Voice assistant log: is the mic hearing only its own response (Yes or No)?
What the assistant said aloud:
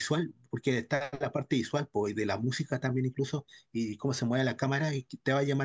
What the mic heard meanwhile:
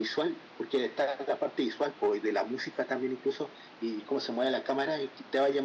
Yes